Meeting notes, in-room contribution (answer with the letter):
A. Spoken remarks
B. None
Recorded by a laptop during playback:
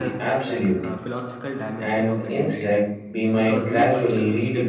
A